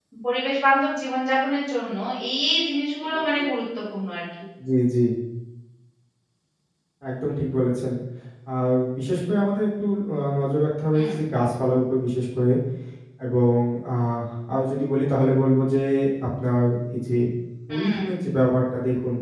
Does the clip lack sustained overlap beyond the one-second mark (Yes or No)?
Yes